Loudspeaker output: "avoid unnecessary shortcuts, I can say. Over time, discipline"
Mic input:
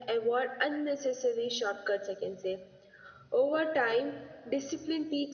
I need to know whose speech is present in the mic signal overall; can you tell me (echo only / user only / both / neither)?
echo only